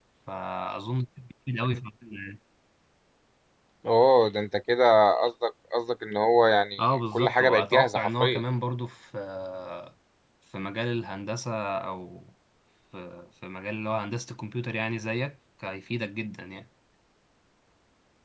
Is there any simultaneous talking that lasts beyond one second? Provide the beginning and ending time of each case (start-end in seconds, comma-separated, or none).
6.8-8.4